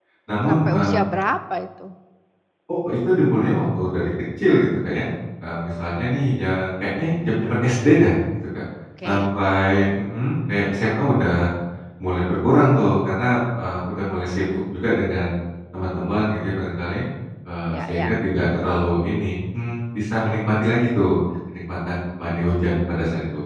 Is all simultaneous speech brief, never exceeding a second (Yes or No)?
Yes